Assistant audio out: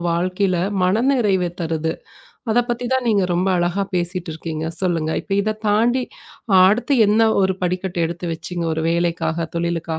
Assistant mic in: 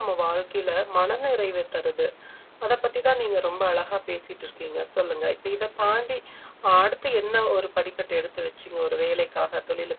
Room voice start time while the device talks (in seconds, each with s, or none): none